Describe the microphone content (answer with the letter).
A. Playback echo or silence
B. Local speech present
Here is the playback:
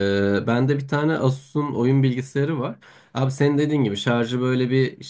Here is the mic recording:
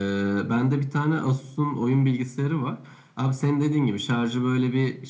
A